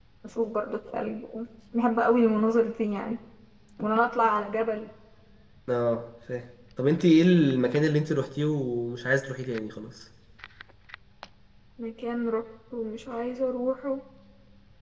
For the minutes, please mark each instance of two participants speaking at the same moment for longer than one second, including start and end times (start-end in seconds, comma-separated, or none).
none